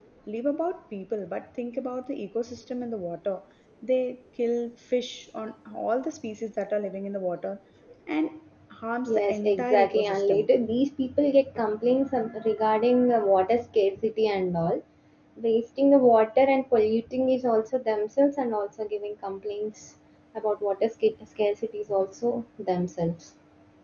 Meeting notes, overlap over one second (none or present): present